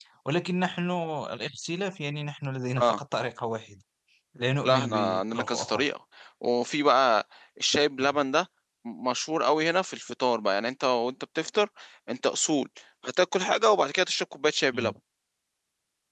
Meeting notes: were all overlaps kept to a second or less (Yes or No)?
No